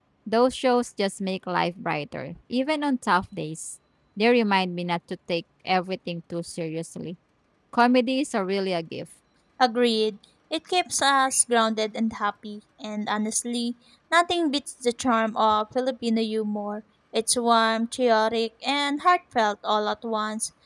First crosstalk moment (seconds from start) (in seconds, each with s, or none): none